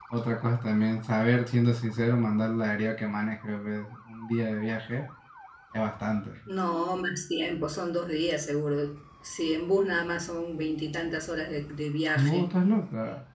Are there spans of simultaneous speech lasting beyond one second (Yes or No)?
No